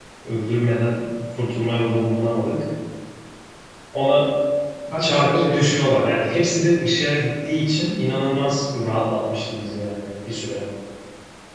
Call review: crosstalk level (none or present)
present